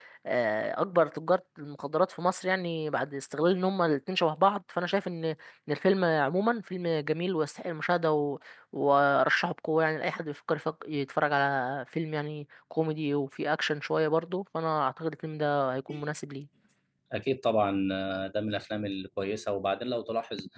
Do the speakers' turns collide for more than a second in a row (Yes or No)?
No